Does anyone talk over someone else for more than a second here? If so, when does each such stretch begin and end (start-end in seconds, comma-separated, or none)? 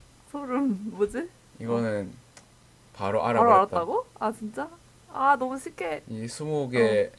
none